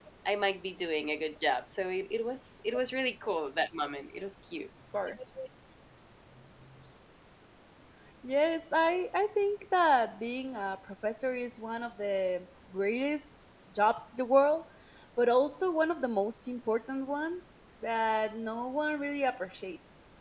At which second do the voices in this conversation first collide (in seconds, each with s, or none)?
none